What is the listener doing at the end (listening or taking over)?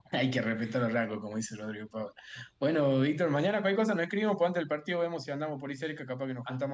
listening